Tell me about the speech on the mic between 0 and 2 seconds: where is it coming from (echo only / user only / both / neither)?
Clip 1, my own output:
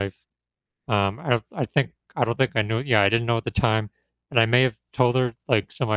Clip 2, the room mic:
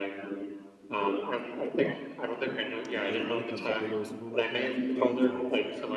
echo only